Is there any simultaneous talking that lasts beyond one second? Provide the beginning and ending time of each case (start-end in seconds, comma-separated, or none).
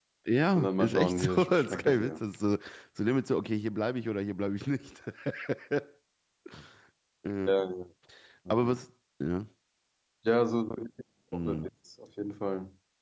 0.6-2.1